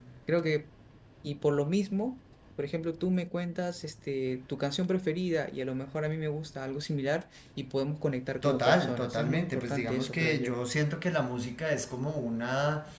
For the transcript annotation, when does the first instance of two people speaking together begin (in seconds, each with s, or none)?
8.4 s